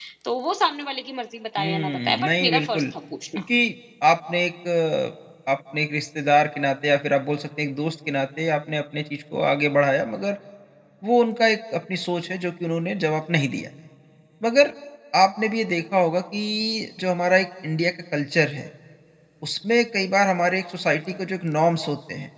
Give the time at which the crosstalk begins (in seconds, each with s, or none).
1.6 s